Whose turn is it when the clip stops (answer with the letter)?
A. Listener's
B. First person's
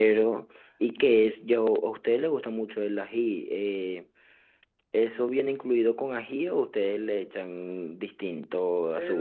A